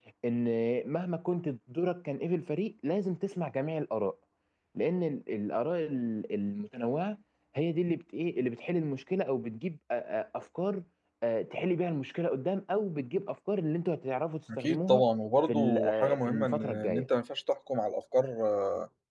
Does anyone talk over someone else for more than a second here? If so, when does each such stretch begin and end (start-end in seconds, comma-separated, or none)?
15.4-17.1